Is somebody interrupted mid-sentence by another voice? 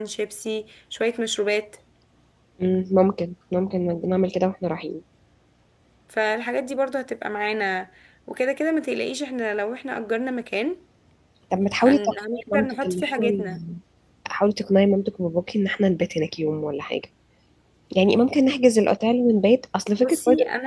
Yes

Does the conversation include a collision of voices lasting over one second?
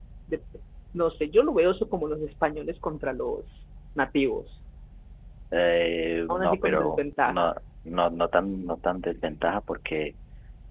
Yes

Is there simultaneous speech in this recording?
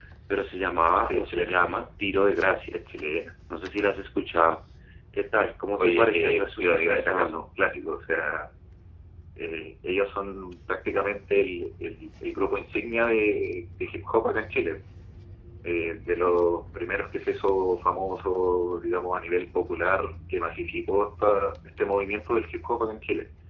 Yes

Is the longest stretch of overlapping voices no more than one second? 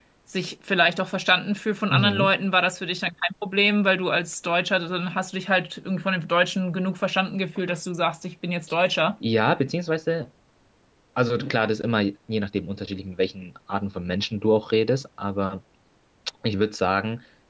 Yes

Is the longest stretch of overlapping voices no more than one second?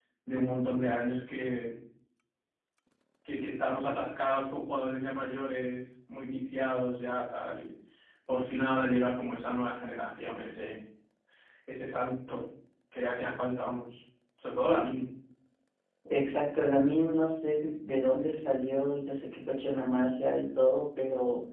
Yes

